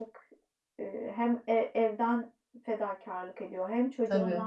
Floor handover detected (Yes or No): No